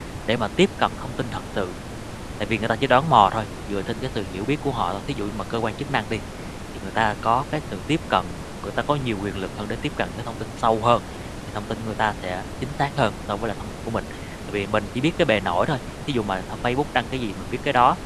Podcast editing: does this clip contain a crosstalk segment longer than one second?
No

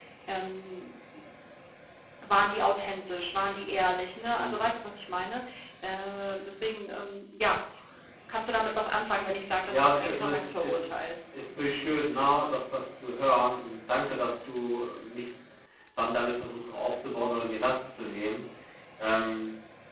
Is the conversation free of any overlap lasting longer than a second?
No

